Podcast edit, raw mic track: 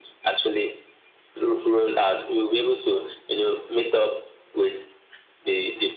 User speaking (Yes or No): No